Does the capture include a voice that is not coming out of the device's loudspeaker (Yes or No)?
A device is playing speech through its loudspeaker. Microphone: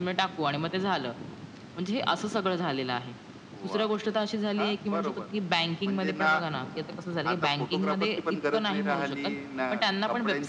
No